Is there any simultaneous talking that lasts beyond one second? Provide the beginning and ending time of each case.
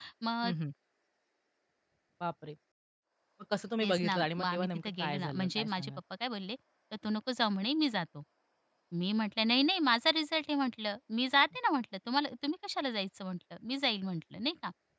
3.8-6.0

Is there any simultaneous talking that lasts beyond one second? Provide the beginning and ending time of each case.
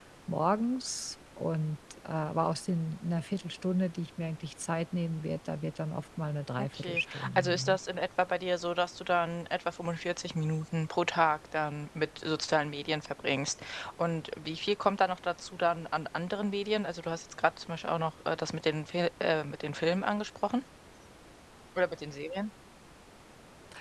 6.6-7.8

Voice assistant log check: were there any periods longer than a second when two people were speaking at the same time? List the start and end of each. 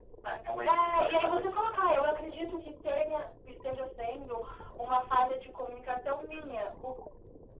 0.7-2.1

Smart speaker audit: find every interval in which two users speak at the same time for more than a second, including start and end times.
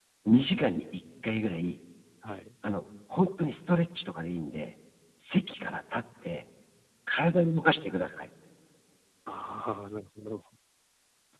none

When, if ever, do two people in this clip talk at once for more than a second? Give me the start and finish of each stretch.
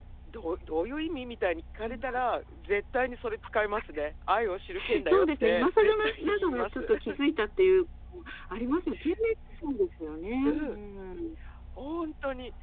5.1-6.9

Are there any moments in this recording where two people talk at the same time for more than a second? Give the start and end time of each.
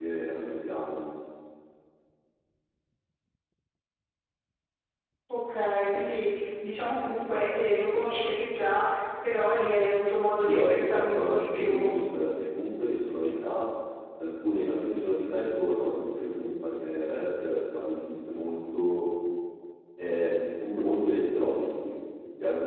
10.4-11.8

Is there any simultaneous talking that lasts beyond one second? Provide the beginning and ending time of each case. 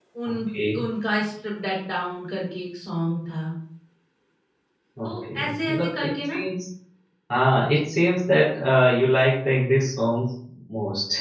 5.0-6.4

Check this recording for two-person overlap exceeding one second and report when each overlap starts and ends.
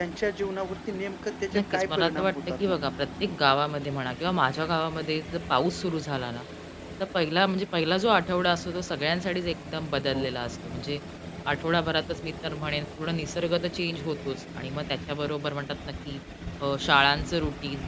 1.5-2.9

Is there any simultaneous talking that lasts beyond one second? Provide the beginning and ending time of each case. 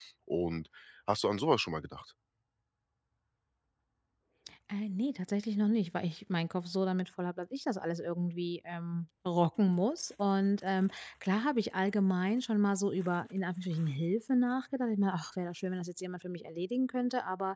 none

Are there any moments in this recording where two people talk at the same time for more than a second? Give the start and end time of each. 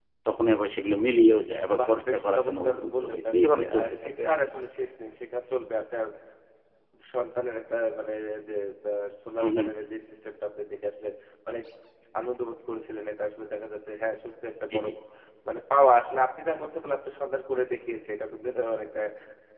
1.8-4.3

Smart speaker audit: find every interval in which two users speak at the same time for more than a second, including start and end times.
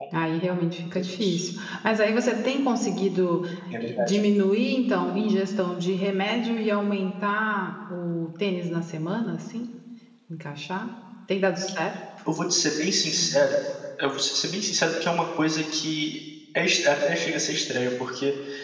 none

